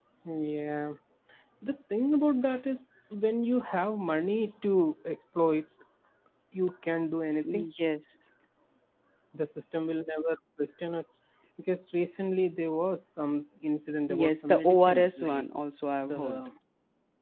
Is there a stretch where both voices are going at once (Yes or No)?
Yes